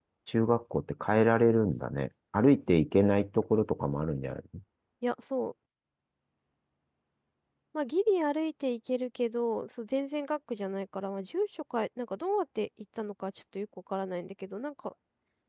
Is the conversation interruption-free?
Yes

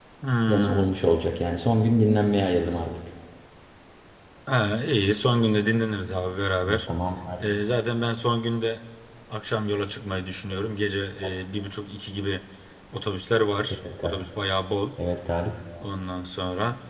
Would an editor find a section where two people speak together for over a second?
No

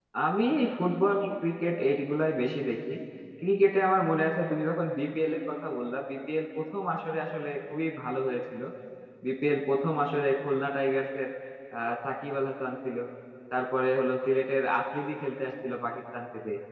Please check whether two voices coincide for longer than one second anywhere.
No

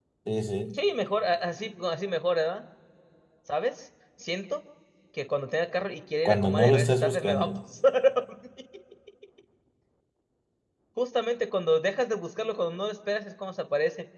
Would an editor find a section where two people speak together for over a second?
Yes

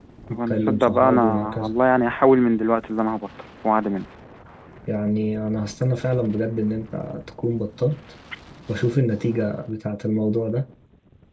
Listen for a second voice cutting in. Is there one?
Yes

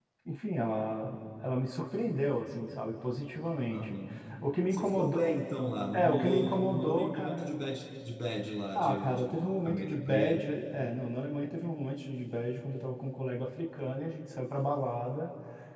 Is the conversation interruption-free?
No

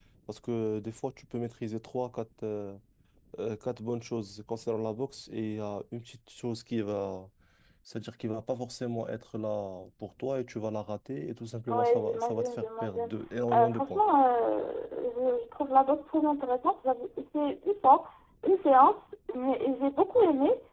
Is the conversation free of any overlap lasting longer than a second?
No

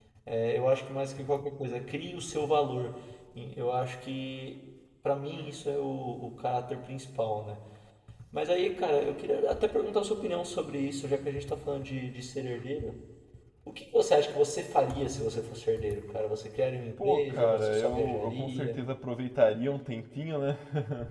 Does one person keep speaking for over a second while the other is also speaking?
Yes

